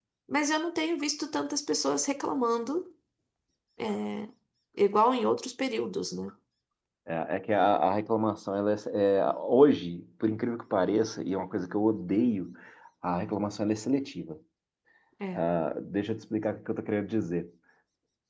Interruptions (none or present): none